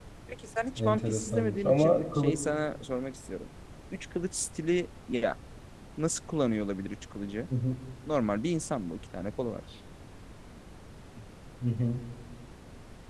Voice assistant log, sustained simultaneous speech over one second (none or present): present